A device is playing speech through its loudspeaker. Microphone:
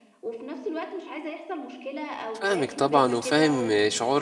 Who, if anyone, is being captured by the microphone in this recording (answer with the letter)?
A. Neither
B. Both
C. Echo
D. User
B